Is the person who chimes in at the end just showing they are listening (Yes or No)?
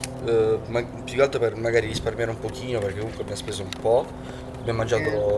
Yes